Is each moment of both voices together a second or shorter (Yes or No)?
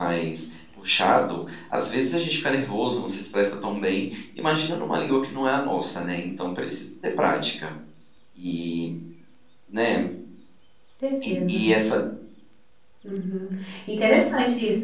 Yes